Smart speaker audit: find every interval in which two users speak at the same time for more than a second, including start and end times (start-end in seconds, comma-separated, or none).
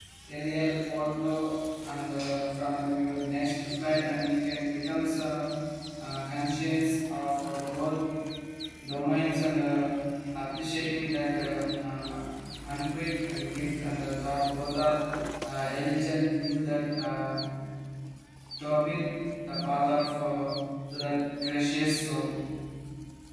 none